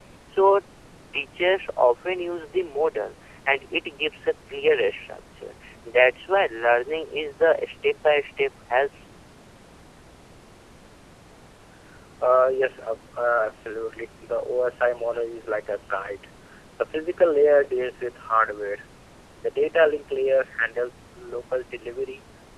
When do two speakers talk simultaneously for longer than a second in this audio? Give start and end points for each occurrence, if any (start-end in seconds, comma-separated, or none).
none